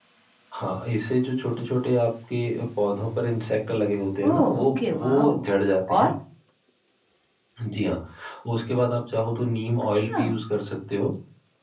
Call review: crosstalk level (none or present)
present